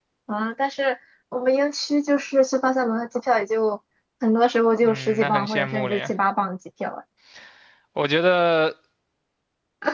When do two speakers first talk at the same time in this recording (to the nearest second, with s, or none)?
5 s